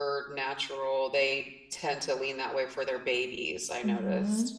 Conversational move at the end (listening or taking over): taking over